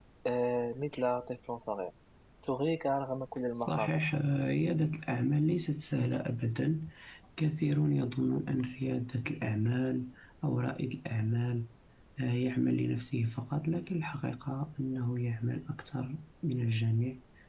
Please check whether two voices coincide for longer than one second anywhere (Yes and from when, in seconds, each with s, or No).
No